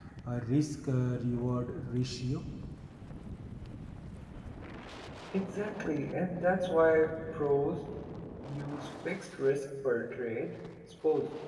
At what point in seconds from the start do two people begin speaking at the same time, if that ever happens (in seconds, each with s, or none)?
none